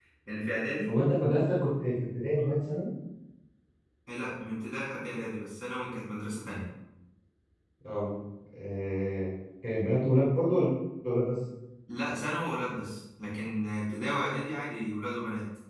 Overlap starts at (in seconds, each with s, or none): none